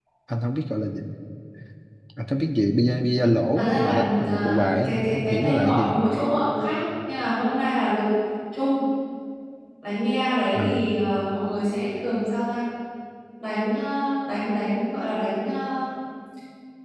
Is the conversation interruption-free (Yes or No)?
No